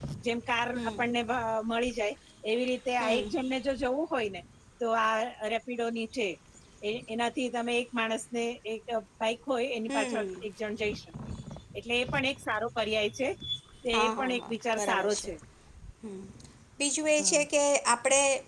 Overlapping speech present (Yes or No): Yes